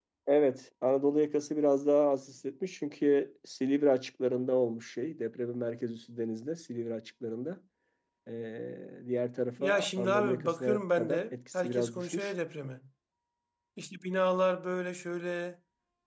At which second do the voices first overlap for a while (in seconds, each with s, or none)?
9.6 s